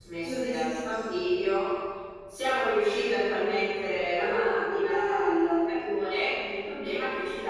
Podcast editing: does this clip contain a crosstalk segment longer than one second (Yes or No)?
Yes